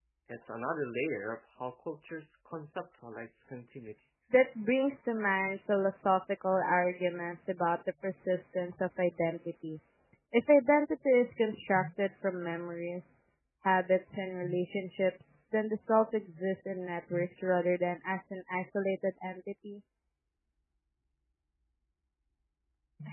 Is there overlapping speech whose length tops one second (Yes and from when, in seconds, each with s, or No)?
No